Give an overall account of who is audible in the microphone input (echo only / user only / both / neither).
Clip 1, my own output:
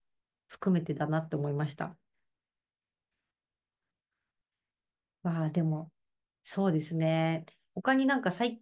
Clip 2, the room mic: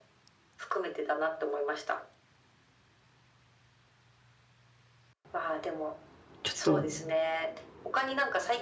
both